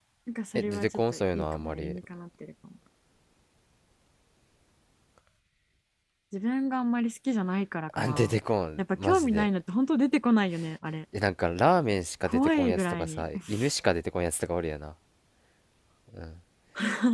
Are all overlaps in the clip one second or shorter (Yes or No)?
No